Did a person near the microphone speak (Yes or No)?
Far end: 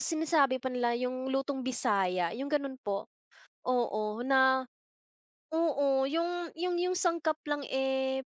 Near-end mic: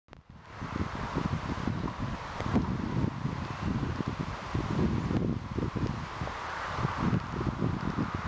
No